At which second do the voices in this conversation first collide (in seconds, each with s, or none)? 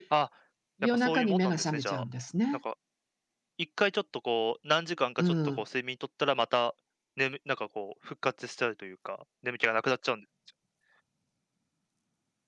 0.8 s